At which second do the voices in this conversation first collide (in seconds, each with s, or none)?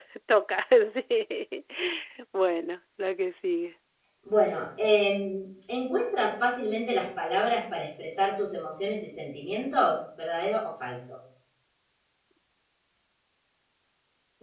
none